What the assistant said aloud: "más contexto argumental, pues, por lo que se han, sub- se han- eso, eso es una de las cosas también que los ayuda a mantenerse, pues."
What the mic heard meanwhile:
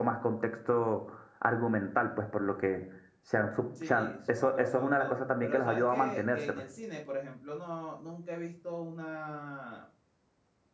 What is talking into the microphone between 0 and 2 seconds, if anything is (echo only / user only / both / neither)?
echo only